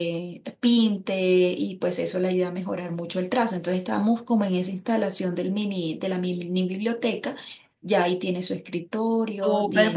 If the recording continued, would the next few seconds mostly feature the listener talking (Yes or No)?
Yes